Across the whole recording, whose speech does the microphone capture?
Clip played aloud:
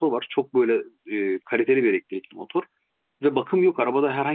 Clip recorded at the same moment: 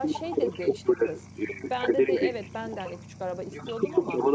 both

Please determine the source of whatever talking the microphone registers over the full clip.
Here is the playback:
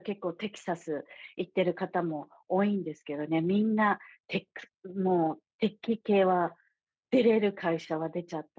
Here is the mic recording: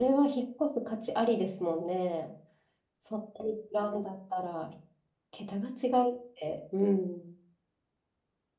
user only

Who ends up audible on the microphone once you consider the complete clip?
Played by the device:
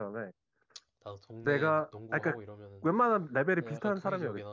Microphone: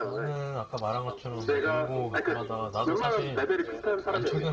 both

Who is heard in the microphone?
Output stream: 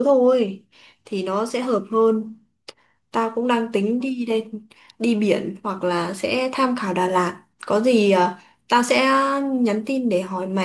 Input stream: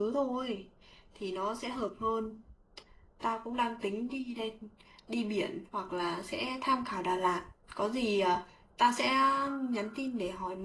echo only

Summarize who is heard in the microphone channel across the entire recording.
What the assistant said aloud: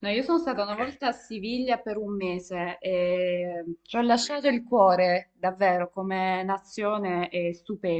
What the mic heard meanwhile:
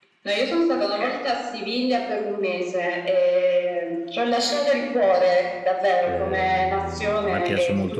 both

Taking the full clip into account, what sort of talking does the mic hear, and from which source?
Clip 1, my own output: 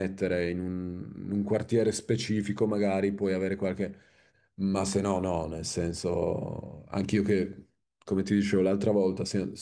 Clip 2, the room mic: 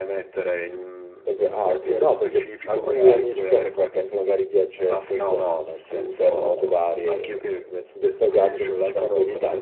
both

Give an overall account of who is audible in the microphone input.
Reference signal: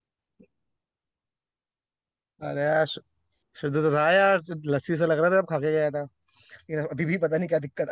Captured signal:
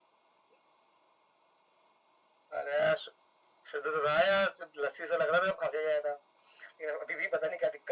echo only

